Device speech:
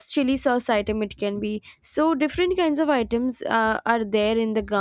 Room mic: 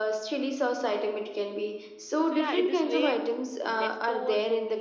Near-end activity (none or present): present